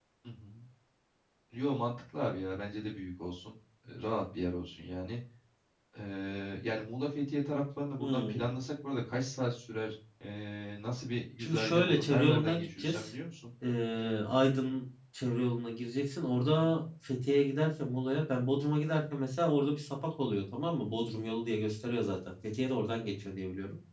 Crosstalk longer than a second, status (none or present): present